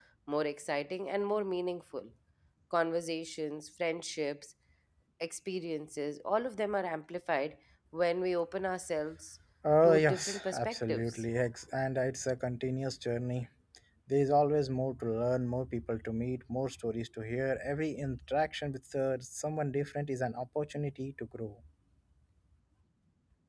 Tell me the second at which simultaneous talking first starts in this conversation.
9.8 s

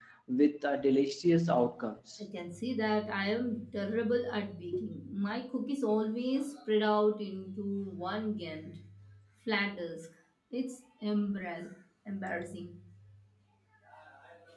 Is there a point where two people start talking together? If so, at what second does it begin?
none

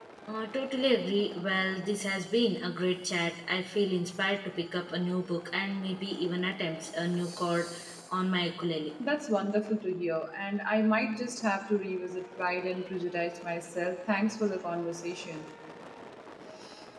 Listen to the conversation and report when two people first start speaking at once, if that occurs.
none

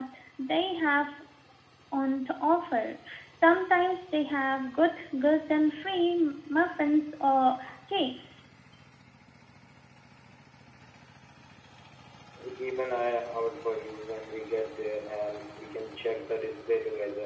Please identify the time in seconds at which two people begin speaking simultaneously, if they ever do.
none

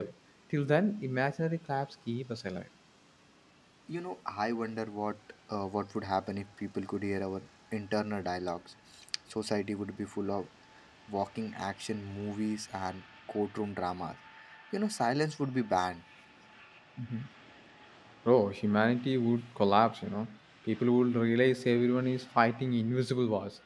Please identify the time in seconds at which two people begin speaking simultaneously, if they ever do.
none

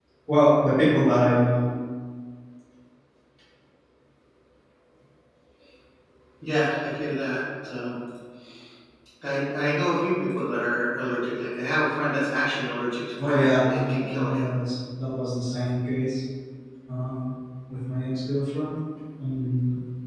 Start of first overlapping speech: 13.2 s

